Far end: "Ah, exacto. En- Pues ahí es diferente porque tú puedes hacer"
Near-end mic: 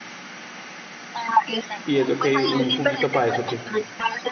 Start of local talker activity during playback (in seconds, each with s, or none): 1.8 s